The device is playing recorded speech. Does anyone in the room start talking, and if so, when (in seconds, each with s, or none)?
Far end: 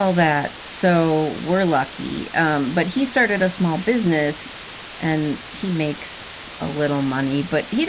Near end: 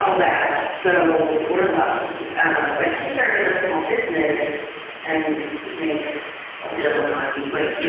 6.7 s